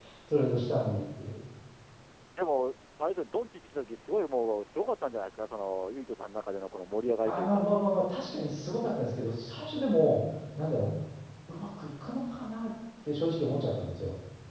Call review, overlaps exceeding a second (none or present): none